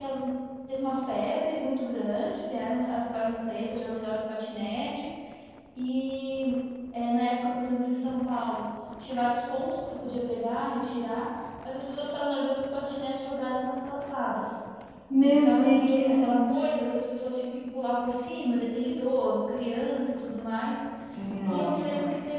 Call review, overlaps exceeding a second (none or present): present